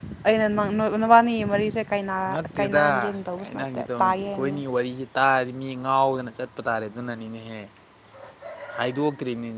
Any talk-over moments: Yes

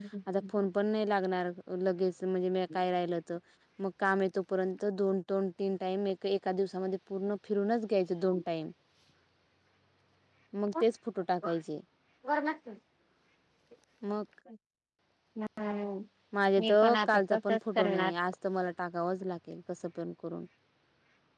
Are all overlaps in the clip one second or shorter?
No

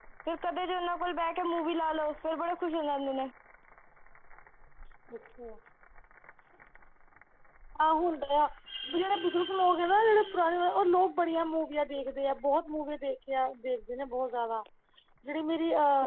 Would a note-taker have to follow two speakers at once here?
No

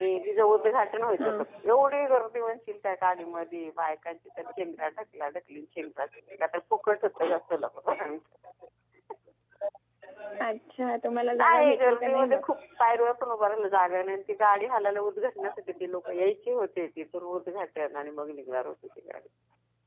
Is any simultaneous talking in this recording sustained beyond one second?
Yes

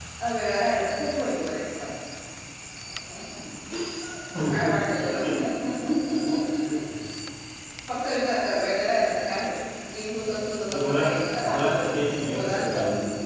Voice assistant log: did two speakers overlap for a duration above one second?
Yes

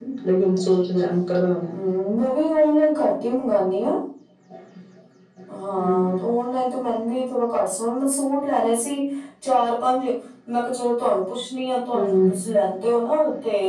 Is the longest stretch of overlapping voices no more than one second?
Yes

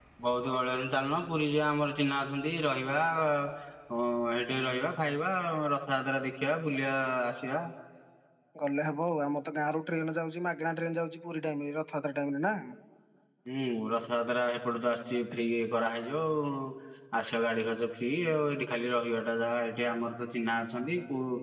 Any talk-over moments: No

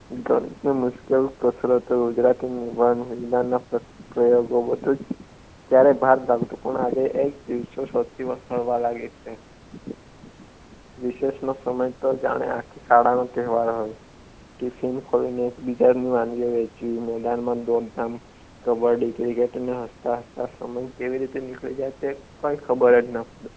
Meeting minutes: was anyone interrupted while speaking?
No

